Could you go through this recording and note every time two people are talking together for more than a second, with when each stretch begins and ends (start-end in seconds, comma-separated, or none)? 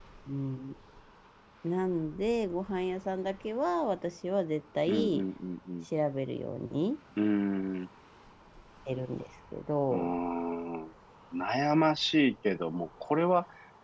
none